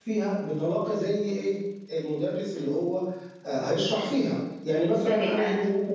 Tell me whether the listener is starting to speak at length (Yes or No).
Yes